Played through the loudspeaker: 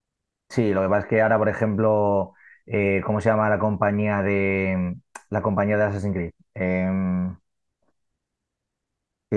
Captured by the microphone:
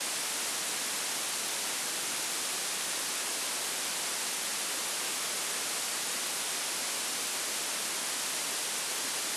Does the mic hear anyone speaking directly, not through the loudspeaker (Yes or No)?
No